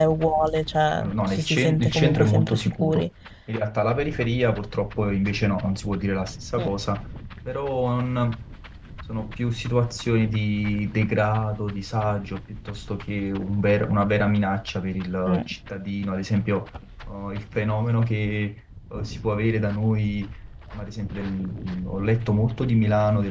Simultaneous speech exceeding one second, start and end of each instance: 0.9-3.0

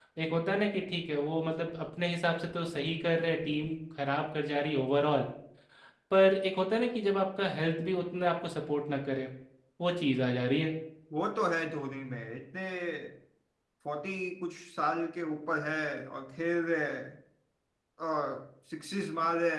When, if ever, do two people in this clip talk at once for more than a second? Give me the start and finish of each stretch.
none

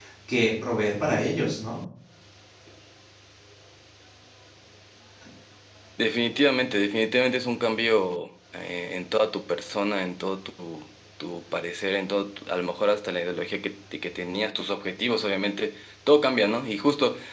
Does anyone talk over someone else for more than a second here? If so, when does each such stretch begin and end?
none

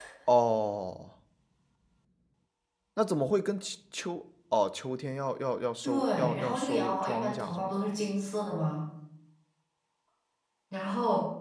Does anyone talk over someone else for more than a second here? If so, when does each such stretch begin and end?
5.8-7.8

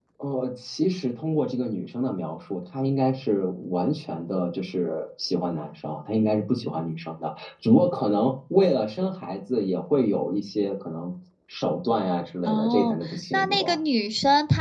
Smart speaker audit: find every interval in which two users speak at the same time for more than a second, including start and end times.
12.4-13.8

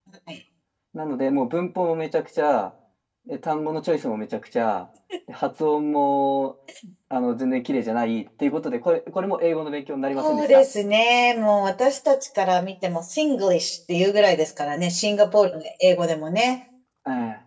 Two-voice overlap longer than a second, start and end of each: none

